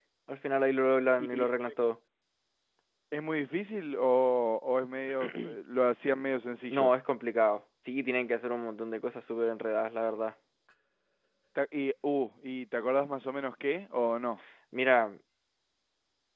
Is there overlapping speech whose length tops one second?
No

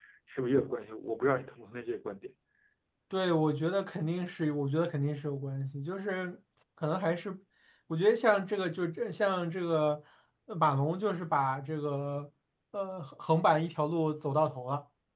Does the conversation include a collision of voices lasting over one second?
No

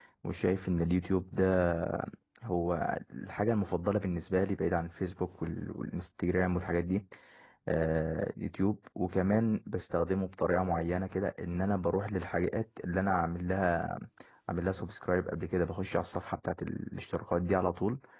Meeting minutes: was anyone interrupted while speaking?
No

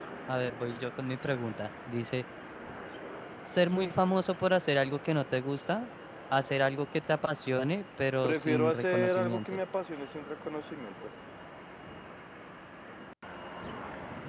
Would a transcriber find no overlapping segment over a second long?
No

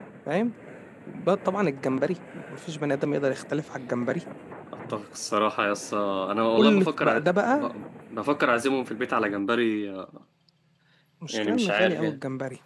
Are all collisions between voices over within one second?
No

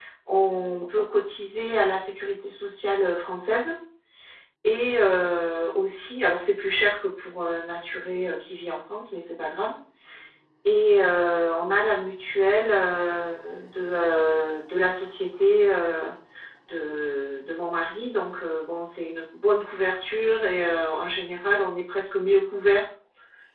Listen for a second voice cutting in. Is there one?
No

